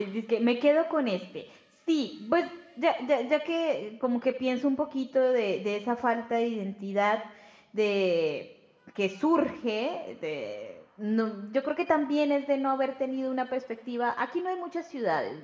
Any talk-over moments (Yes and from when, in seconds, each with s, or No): No